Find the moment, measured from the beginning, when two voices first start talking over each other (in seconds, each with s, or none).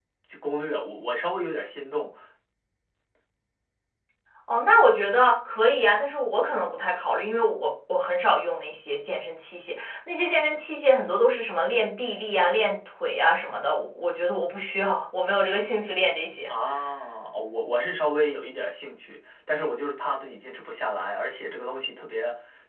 none